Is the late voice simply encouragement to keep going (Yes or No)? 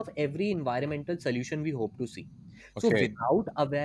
Yes